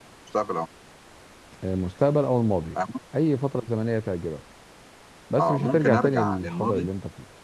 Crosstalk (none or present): present